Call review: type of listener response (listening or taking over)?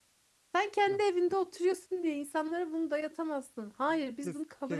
taking over